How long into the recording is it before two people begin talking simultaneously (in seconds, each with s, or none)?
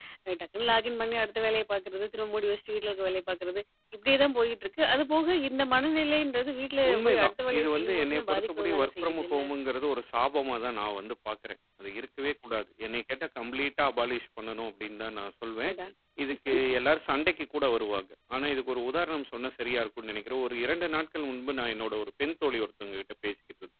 6.8 s